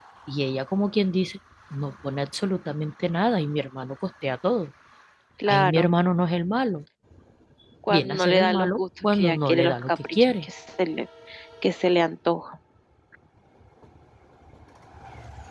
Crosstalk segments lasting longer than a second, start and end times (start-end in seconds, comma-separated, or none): 7.9-10.5